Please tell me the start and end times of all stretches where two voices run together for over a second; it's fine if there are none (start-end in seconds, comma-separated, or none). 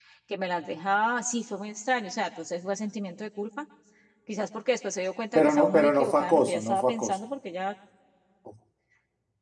5.3-7.2